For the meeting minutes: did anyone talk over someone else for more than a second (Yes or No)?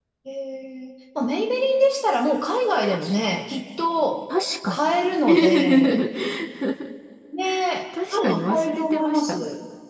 Yes